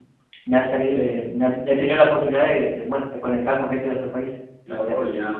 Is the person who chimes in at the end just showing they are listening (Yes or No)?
No